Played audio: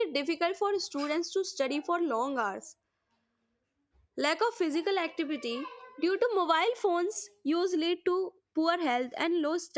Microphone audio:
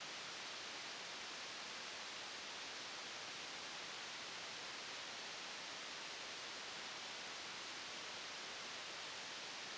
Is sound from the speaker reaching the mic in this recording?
No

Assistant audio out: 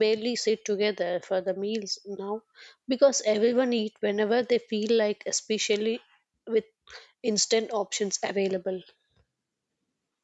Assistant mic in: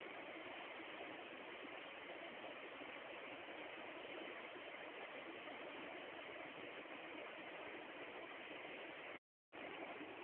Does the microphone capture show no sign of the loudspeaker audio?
Yes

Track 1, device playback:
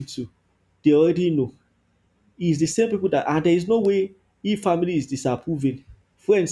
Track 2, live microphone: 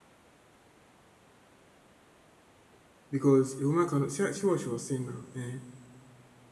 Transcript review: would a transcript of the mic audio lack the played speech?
Yes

